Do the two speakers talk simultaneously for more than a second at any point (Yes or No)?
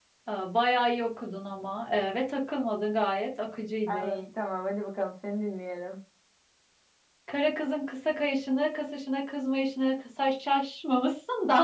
No